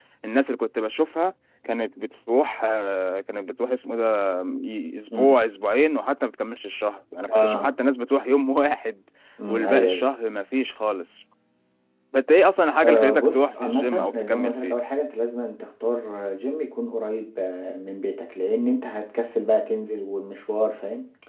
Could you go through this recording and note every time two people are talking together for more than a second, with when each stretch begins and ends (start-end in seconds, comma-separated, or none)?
12.8-14.7